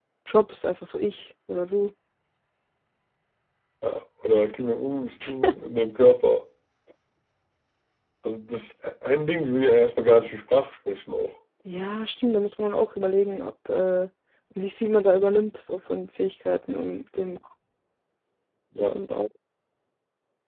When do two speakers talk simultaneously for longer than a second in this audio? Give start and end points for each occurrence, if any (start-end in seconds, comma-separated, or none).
none